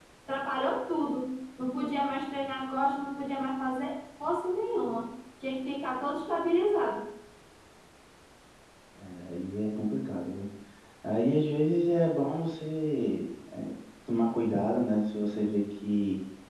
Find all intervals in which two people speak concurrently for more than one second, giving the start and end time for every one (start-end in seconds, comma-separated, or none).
none